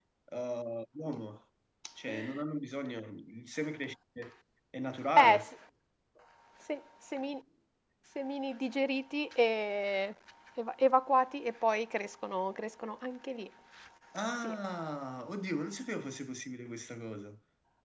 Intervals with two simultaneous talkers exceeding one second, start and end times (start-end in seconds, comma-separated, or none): none